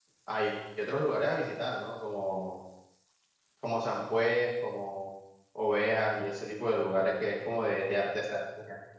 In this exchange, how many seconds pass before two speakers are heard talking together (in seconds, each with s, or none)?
none